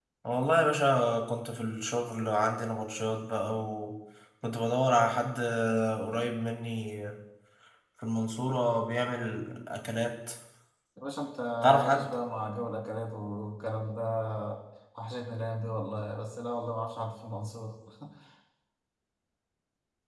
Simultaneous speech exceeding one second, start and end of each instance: none

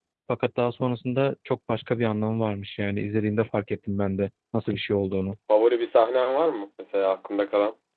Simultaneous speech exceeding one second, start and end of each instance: none

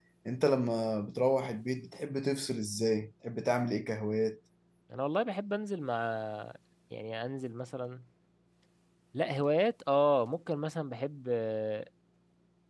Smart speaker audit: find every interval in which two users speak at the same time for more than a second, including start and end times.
none

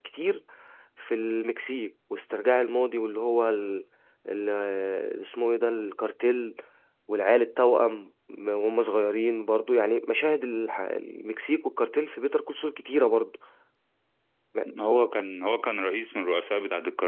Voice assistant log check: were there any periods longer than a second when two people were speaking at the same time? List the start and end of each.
none

